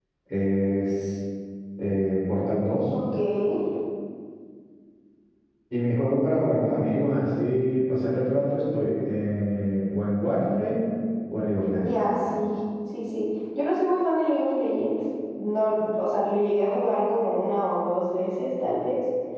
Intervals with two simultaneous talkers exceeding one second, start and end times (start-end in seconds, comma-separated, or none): none